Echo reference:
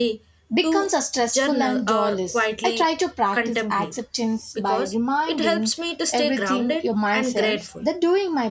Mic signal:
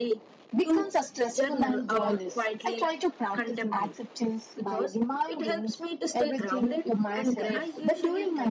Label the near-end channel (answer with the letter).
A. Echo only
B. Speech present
B